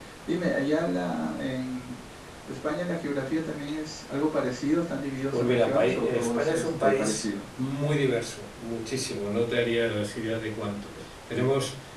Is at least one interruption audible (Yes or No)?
Yes